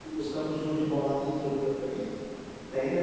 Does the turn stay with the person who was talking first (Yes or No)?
No